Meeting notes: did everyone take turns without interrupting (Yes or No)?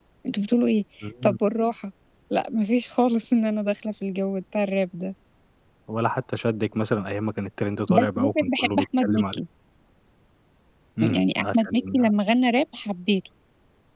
No